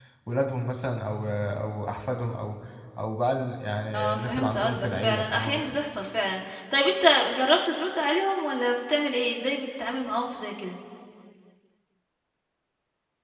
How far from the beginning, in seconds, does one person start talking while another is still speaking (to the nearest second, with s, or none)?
4 s